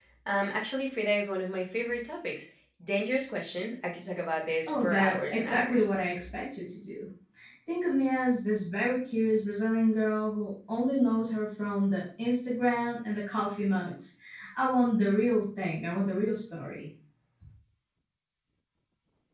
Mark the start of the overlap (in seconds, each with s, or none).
4.7 s